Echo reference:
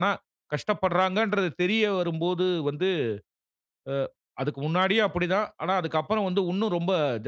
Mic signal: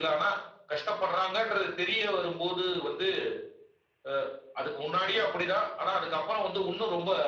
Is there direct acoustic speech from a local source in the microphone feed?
No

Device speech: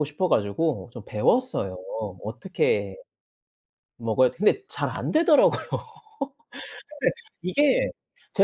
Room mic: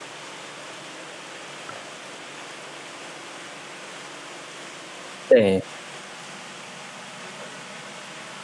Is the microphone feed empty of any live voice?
No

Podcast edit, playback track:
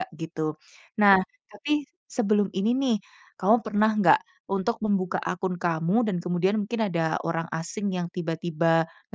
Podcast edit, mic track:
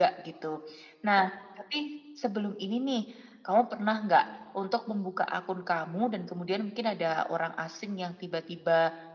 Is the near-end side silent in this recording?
Yes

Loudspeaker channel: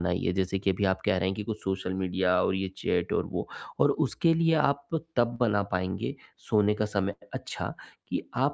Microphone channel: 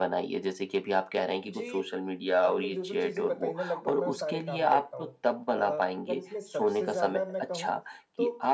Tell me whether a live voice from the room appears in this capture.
Yes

